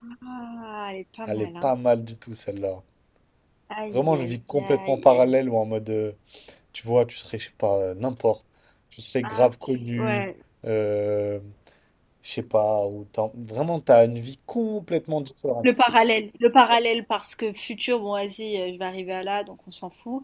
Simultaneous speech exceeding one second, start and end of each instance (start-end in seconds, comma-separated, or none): 3.9-5.4